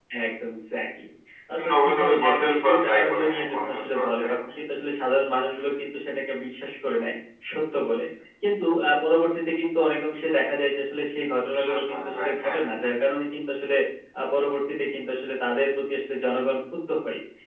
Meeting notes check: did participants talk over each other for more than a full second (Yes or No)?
Yes